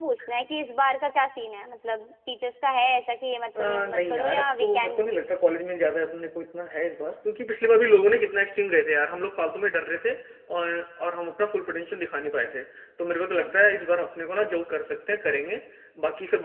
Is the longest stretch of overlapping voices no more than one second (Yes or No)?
No